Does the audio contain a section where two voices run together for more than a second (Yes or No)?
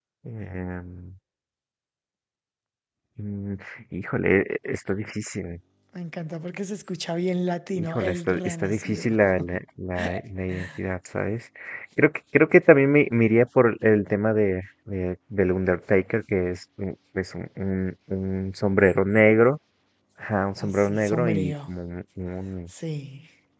Yes